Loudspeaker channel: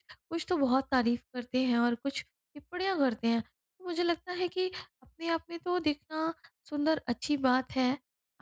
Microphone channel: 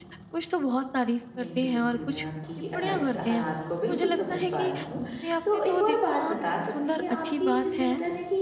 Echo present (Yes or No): Yes